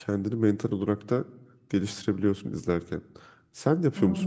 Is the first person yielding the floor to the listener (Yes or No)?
Yes